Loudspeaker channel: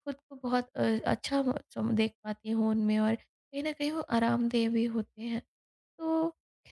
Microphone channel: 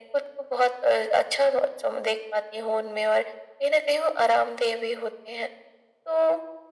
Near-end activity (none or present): none